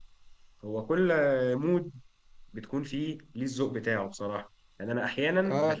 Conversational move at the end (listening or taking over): listening